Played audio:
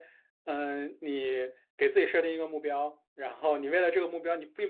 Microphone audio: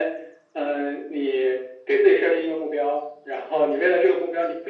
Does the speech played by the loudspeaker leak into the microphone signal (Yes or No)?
Yes